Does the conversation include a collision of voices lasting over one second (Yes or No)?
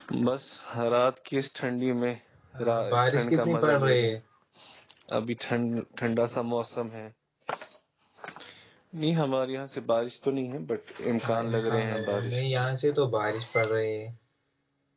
Yes